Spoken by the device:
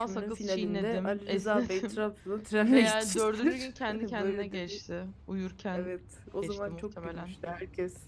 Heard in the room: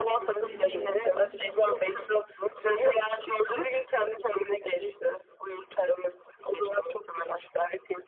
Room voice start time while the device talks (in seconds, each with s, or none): 0.4 s